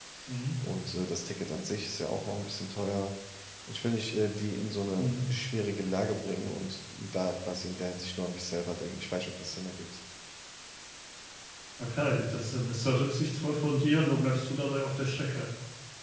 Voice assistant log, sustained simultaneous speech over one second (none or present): none